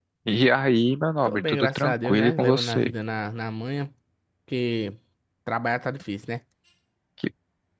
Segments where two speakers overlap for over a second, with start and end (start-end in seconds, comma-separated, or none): 1.2-2.9